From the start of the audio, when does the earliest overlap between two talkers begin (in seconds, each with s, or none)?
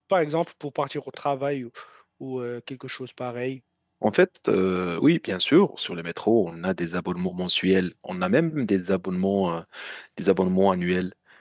none